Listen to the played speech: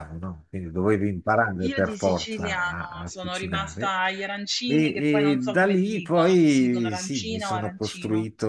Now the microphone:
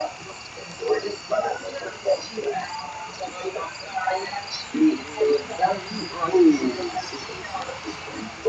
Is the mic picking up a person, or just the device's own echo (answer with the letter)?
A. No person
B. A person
A